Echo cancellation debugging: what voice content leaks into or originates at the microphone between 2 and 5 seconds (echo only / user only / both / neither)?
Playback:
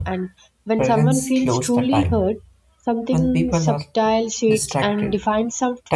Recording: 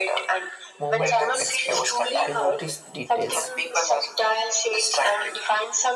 both